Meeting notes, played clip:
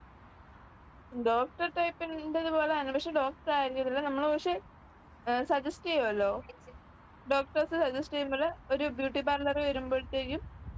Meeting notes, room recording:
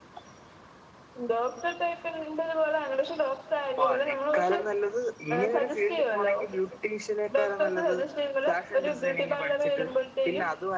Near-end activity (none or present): present